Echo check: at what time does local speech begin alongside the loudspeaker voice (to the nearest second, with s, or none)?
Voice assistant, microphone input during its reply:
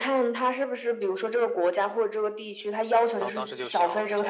3 s